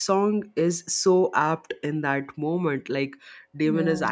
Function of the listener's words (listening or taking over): listening